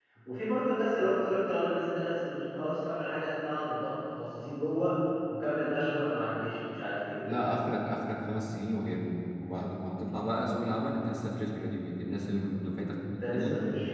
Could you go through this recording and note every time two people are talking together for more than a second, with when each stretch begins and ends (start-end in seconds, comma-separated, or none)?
none